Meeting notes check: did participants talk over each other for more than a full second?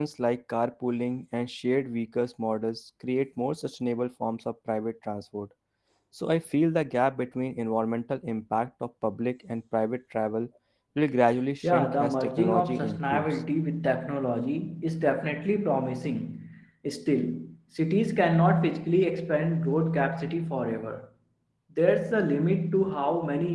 Yes, from 11.6 s

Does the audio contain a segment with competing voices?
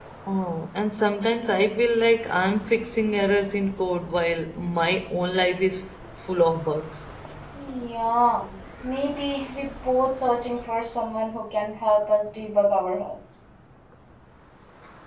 No

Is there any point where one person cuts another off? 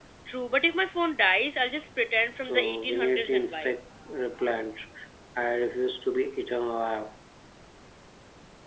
Yes, from 2.4 s

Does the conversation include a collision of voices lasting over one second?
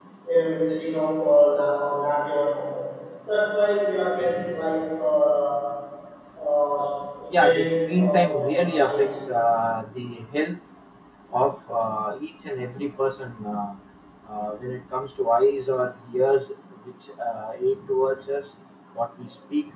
Yes, from 7.3 s

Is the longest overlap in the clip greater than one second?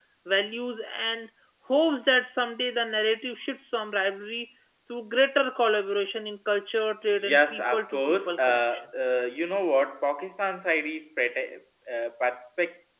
Yes, from 7.1 s

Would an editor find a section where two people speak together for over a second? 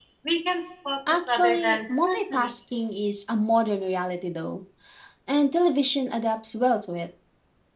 Yes, from 1.1 s

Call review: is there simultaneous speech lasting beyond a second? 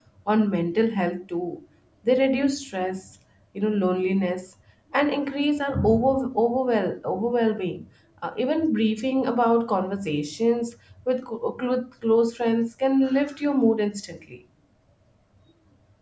No

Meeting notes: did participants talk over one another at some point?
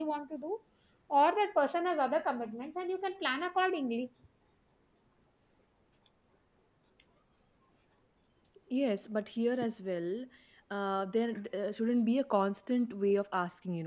No

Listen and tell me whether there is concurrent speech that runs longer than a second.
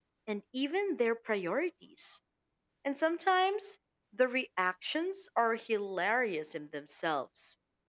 No

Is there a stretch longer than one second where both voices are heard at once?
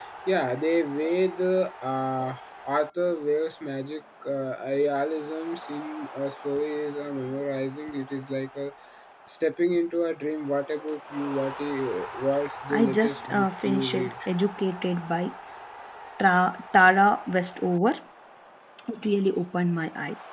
Yes, from 12.7 s

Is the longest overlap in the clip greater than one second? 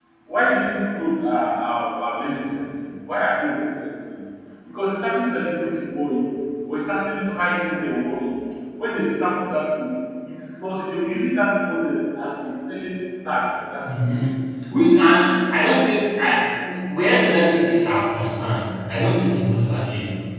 No

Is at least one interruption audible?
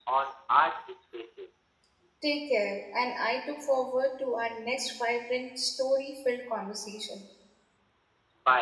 No

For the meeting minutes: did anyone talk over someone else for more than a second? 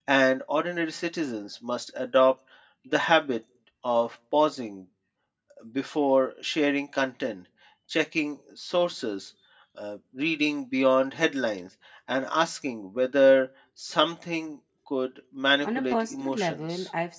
Yes, from 15.6 s

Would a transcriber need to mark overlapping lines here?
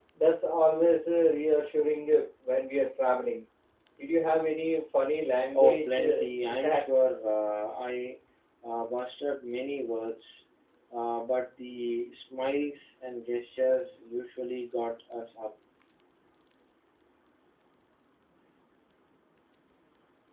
Yes, from 5.5 s

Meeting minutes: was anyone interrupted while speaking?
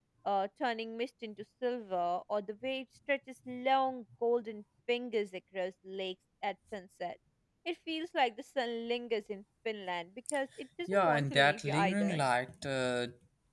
Yes, from 10.9 s

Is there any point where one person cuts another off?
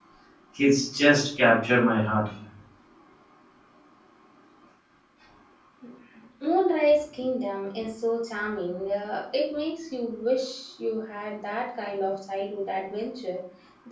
No

